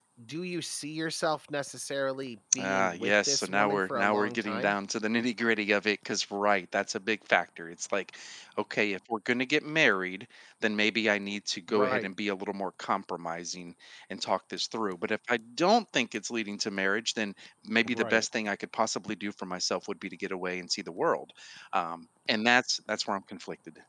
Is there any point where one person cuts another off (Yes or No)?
Yes